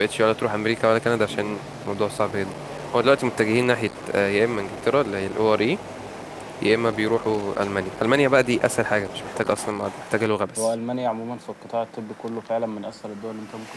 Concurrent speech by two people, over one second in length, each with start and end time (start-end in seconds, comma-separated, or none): none